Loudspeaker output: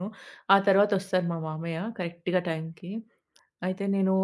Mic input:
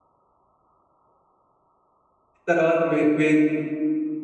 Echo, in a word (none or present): none